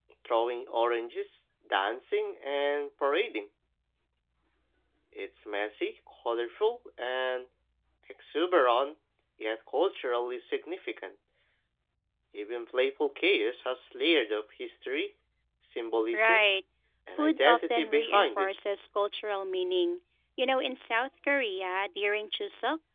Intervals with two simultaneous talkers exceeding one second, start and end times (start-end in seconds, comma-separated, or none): 17.2-18.5